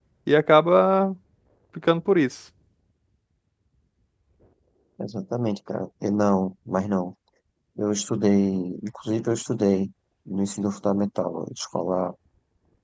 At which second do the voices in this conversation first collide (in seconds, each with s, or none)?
none